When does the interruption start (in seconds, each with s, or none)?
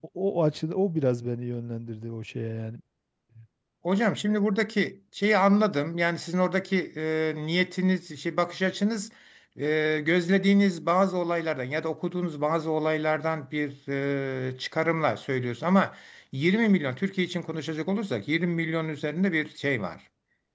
none